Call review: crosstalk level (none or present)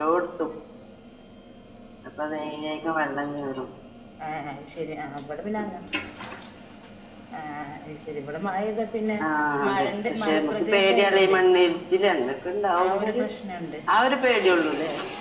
present